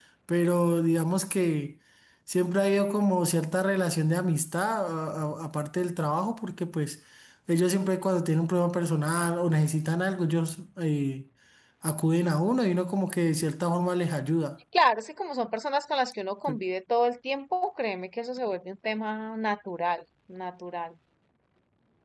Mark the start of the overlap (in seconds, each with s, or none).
none